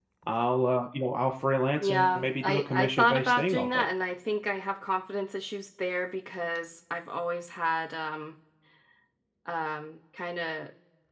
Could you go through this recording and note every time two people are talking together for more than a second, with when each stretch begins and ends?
1.8-3.9

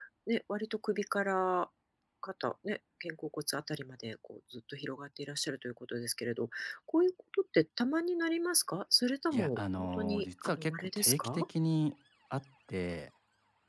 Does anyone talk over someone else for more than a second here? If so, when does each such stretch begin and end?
9.3-11.4

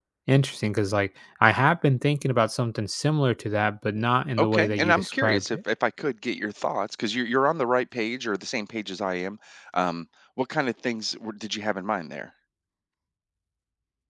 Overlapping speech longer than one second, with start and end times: 4.4-5.6

